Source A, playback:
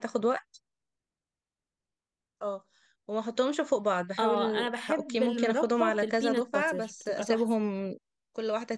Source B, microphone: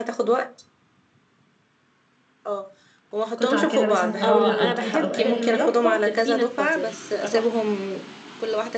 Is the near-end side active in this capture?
Yes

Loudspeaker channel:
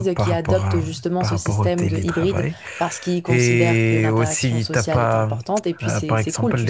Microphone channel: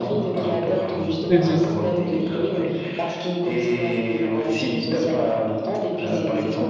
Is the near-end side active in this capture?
Yes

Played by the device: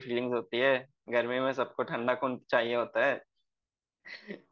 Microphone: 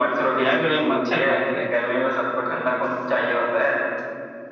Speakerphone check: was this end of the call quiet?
No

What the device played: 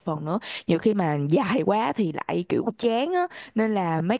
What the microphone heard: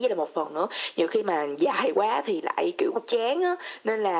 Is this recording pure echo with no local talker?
Yes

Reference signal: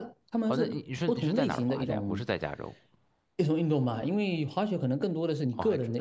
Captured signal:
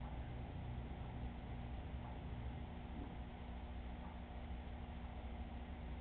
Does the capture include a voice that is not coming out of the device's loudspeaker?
No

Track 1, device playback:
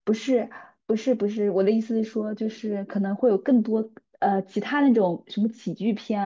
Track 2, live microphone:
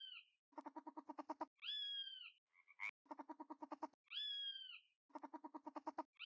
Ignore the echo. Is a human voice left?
No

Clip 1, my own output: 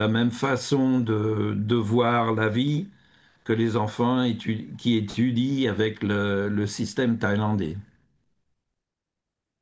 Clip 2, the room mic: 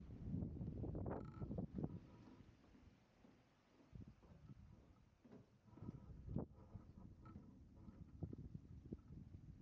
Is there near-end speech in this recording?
No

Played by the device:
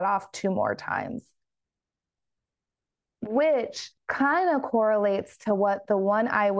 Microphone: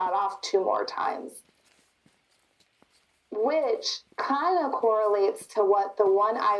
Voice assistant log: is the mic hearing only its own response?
Yes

